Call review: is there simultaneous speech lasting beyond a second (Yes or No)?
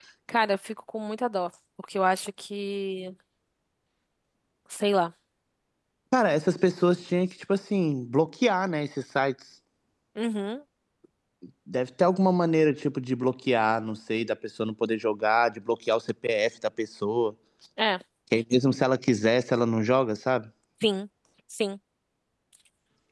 No